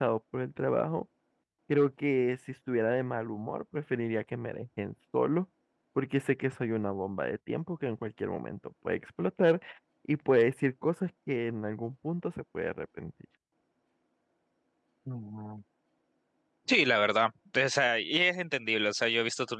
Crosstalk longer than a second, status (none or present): none